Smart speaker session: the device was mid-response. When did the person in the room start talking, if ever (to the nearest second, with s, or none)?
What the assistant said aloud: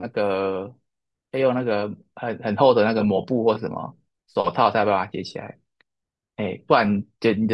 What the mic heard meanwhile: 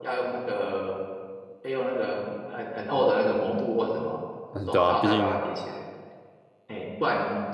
5 s